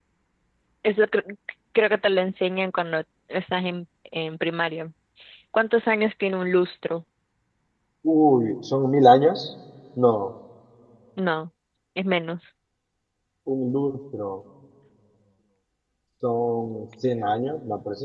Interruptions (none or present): none